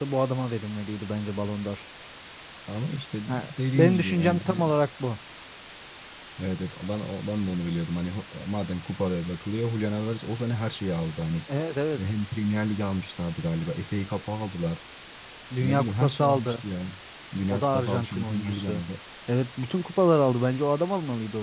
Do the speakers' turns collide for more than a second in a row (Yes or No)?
Yes